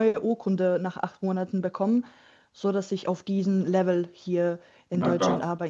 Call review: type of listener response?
taking over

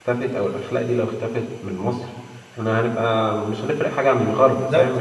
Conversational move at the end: taking over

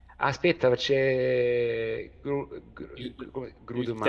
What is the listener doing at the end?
taking over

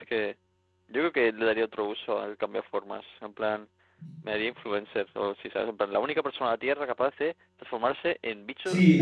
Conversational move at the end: taking over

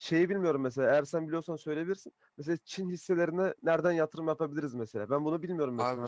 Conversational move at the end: taking over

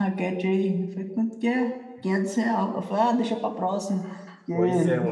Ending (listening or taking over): taking over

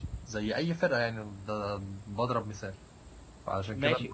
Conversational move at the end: taking over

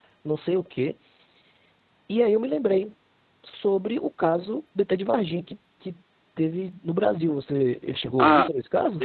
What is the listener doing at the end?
taking over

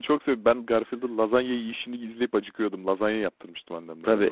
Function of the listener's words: taking over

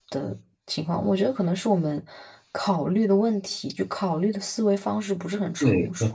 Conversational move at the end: taking over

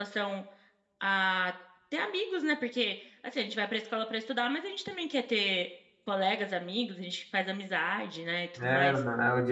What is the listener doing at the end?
taking over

